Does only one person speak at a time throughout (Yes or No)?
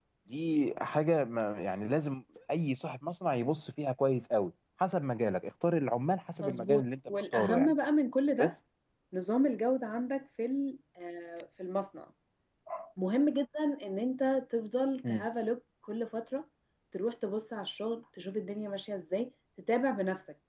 No